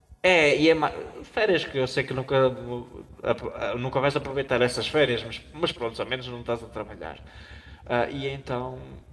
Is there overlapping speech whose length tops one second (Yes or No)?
No